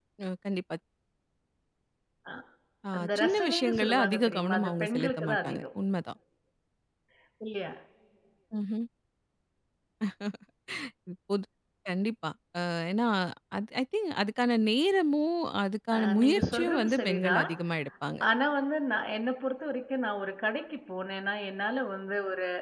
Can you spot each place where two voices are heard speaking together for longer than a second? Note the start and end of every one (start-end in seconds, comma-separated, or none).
3.0-5.6, 16.0-17.5